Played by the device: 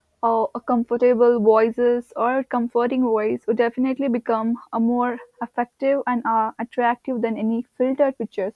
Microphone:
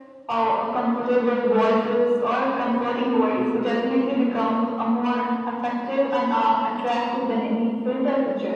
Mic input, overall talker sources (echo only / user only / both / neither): echo only